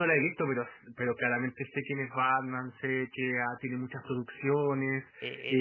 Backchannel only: No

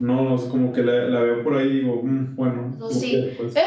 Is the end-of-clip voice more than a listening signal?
Yes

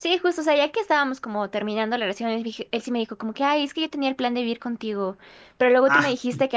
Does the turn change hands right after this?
No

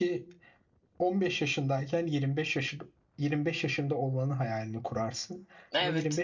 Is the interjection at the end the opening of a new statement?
No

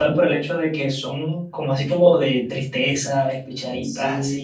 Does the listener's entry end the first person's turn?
Yes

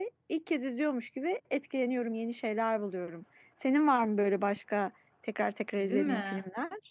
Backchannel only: No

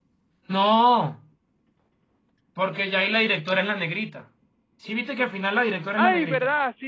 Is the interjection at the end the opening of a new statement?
Yes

